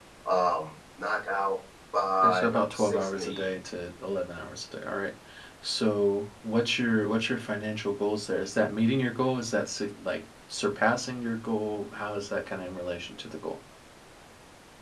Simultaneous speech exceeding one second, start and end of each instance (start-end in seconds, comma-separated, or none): 2.2-3.5